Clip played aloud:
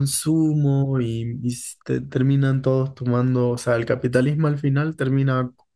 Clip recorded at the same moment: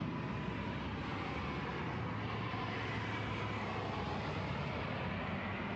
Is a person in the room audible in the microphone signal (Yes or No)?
No